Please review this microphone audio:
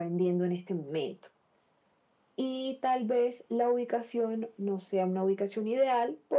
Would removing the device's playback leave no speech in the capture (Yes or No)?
Yes